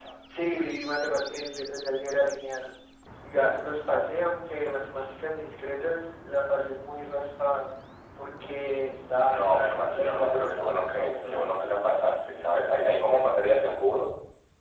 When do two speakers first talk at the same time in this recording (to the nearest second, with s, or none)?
9 s